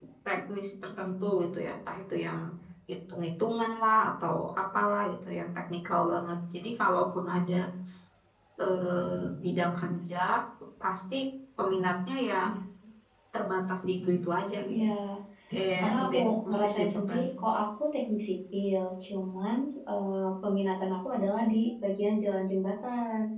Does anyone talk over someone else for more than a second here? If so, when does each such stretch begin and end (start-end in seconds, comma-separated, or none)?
15.8-17.2